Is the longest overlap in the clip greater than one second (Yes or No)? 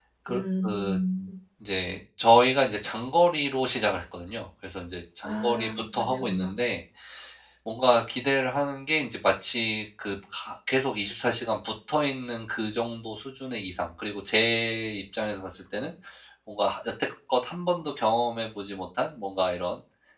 Yes